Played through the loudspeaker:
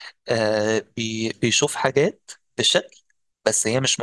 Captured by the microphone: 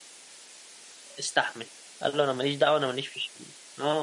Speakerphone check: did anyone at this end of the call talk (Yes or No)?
Yes